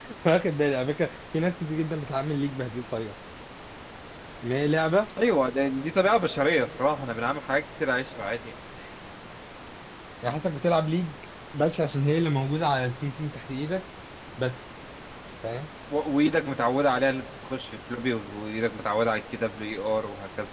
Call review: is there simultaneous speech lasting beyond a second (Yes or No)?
No